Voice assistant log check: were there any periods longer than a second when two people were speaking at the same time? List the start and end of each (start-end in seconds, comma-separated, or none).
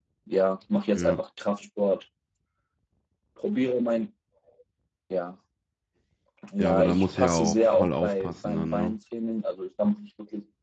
6.6-8.9